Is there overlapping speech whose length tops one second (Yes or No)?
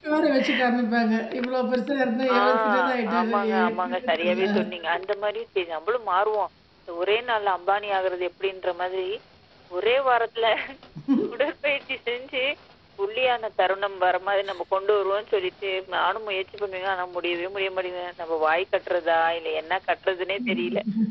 Yes